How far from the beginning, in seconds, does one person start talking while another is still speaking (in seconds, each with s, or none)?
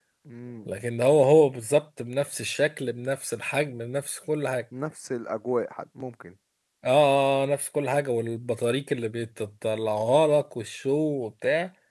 none